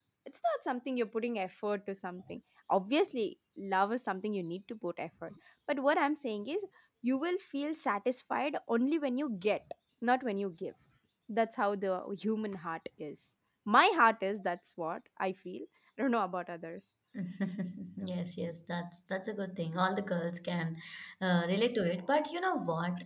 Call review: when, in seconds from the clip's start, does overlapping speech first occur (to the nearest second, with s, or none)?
none